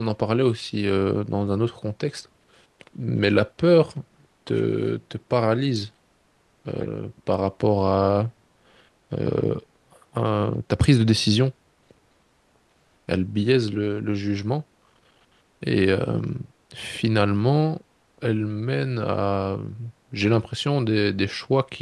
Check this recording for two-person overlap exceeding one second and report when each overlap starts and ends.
none

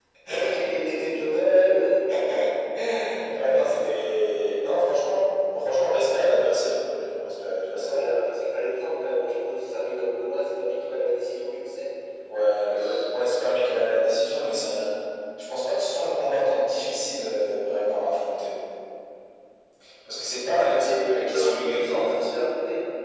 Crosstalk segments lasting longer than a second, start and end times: 20.5-22.3

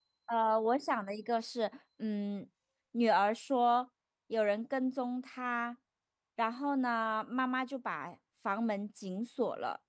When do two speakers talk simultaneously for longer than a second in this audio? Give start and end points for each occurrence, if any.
none

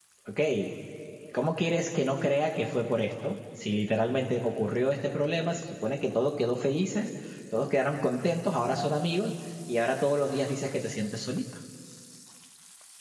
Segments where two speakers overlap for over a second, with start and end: none

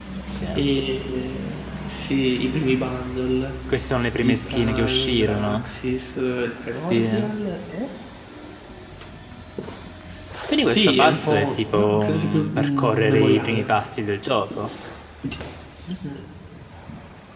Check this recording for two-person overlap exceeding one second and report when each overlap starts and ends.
4.2-5.6, 10.6-13.7

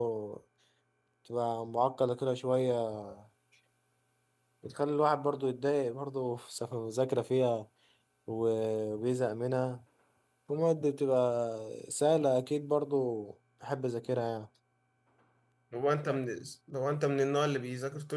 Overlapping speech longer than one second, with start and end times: none

